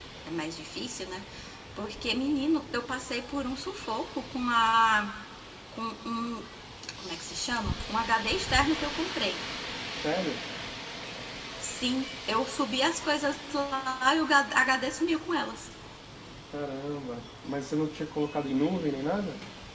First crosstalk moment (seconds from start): none

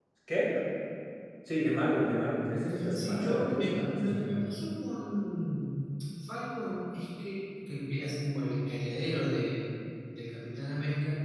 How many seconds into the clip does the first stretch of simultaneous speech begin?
2.9 s

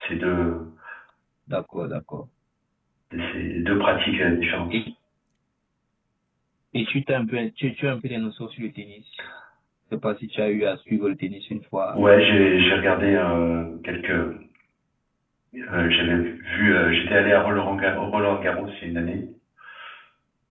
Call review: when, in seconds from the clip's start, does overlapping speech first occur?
none

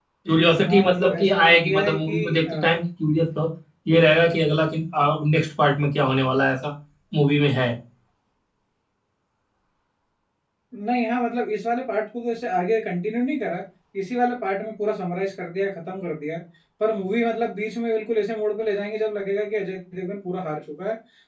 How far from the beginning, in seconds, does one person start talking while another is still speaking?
0.7 s

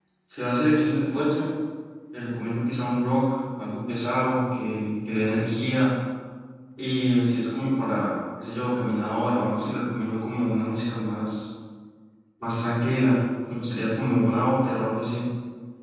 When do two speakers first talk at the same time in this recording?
none

